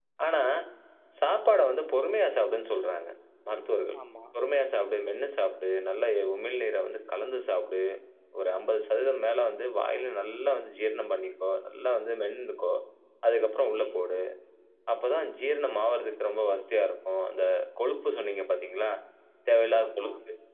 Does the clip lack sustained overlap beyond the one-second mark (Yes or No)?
Yes